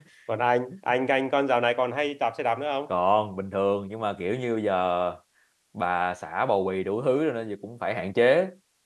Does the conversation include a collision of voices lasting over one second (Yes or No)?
No